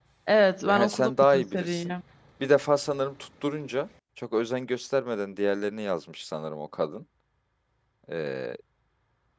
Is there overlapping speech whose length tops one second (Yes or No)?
Yes